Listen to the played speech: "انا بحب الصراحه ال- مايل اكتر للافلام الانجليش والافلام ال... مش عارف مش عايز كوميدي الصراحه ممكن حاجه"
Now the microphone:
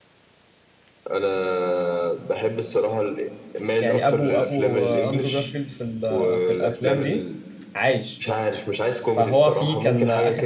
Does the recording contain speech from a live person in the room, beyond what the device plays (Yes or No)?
Yes